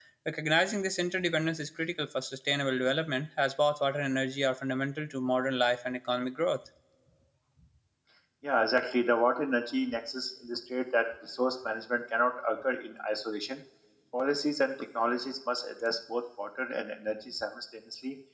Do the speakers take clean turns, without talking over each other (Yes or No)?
Yes